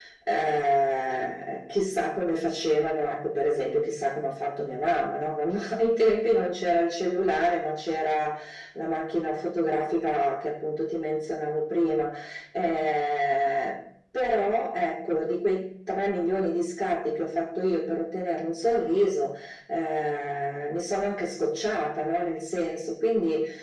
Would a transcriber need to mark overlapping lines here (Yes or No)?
No